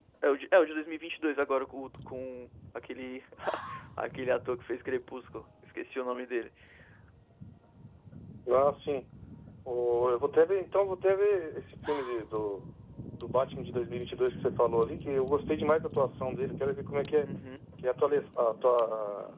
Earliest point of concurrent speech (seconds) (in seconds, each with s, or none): none